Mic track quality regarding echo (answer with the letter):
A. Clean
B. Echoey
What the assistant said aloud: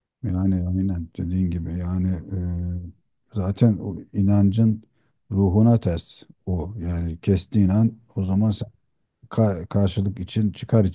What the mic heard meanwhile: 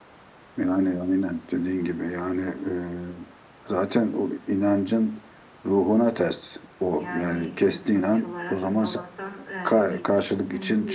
B